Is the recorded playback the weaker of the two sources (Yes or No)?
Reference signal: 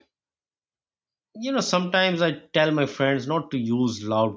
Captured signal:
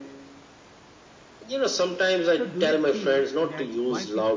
No